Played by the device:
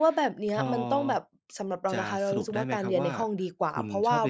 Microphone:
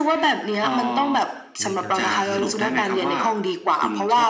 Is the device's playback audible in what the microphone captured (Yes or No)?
Yes